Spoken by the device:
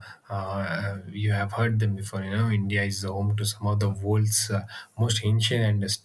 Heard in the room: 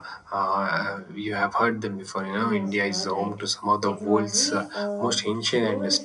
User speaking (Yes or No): Yes